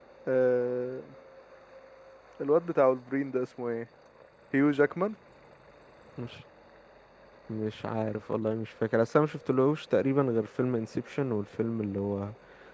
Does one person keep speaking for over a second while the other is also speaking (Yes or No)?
No